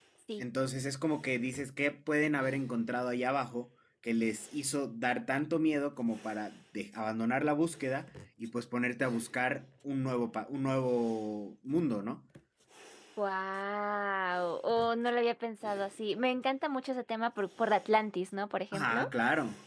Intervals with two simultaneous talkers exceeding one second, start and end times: none

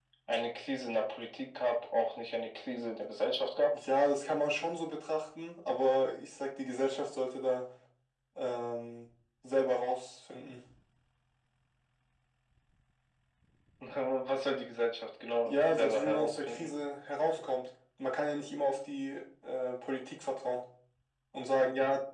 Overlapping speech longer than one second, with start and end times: 15.4-16.7

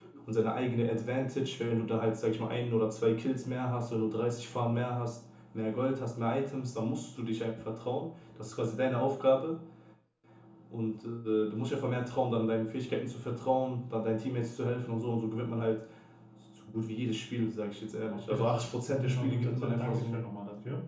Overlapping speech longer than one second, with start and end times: 18.1-20.2

